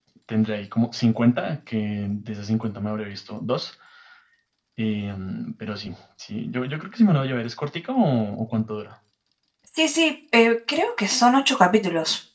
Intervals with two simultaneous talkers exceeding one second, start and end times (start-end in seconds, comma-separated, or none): none